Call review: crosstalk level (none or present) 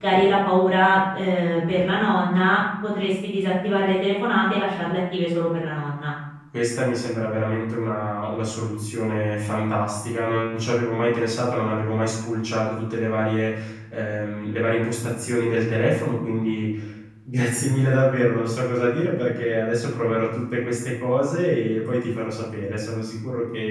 none